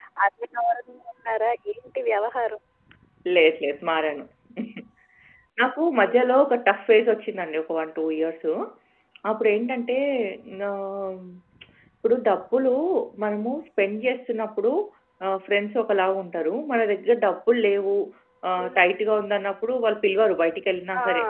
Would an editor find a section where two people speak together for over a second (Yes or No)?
No